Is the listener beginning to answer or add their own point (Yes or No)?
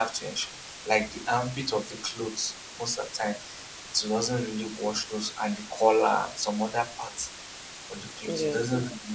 No